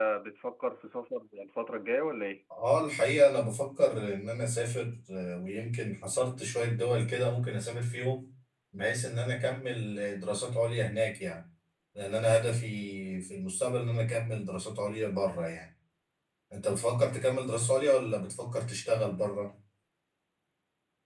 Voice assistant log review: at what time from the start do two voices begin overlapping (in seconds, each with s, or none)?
none